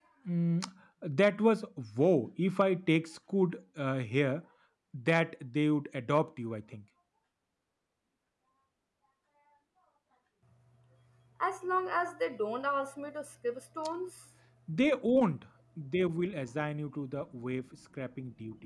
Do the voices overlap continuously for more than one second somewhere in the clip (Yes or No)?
No